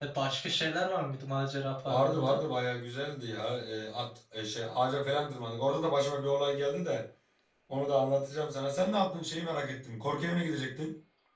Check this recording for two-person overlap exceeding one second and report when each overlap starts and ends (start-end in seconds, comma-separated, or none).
none